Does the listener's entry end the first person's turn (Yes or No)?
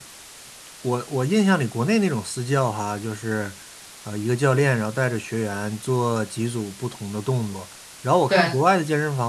No